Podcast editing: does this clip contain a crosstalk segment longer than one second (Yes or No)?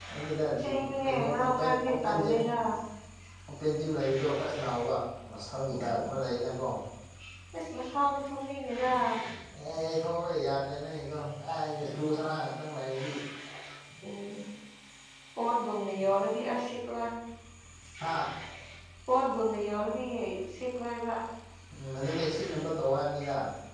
Yes